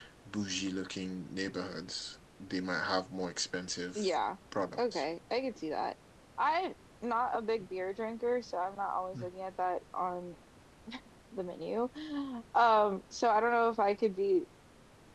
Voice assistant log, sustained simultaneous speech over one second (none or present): none